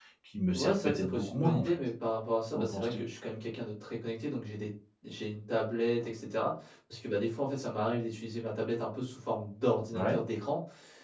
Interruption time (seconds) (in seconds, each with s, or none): 0.5 s